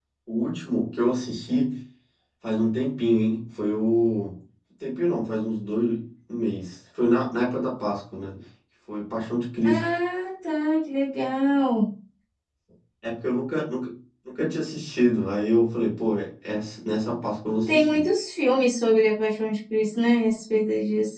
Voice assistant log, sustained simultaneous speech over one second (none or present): none